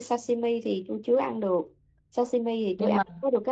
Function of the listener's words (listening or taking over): listening